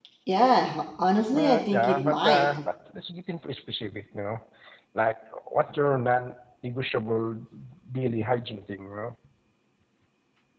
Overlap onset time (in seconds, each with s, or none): 1.3 s